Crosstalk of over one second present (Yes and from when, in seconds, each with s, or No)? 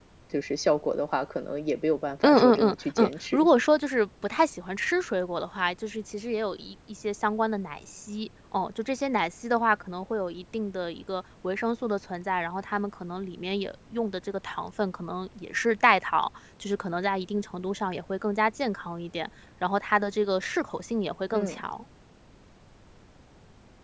Yes, from 2.2 s